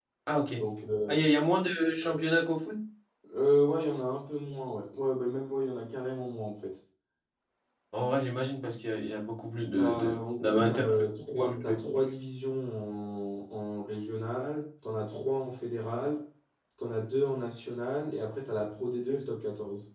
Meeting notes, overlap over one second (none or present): present